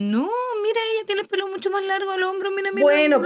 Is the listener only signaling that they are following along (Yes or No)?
No